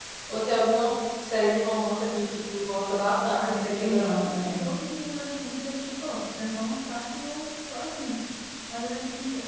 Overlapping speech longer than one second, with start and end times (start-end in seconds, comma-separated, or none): 3.3-4.6